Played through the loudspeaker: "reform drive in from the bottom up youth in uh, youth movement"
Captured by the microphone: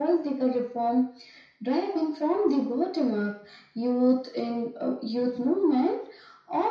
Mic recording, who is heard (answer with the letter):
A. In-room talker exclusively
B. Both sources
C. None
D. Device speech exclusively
D